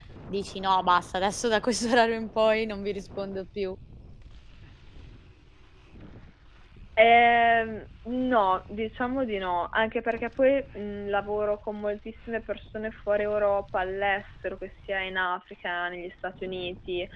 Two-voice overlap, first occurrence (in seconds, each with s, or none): none